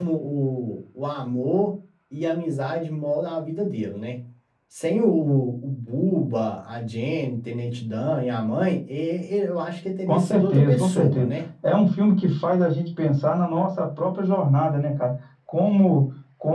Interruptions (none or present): present